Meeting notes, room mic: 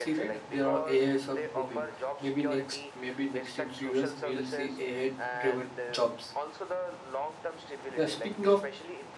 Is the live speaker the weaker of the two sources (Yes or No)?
No